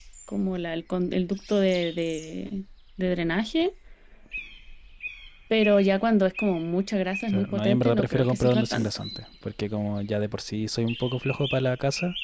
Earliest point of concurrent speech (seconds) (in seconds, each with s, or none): 7.3 s